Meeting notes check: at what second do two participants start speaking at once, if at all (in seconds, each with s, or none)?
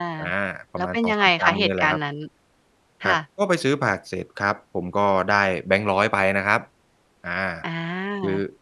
0.8 s